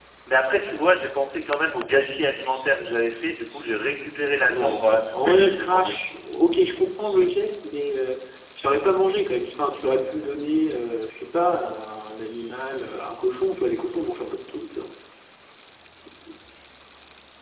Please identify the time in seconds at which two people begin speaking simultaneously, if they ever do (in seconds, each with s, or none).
4.4 s